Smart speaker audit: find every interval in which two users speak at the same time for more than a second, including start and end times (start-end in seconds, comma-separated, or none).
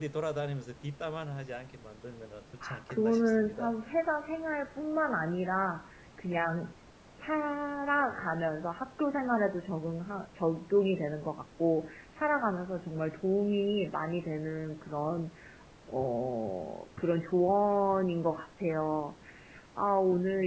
2.6-3.8